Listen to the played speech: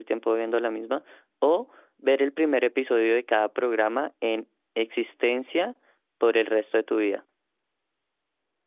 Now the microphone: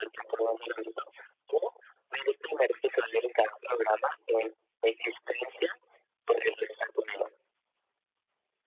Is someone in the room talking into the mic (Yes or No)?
No